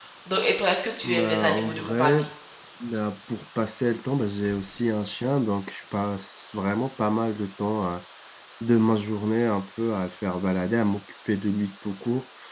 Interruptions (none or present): present